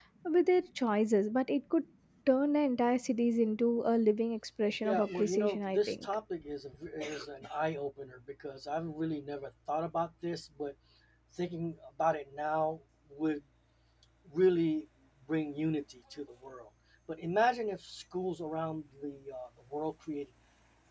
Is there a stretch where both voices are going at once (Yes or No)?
Yes